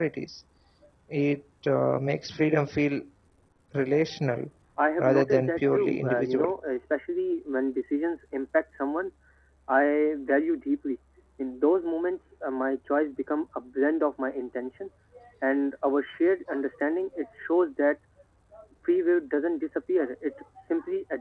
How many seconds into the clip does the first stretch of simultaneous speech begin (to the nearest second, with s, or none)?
5 s